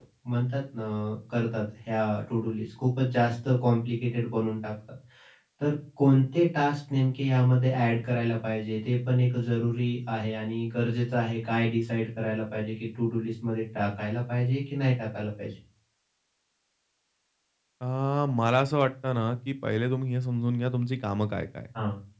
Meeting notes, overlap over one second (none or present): none